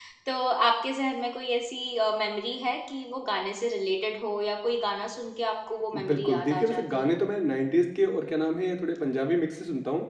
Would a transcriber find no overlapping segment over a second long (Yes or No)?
No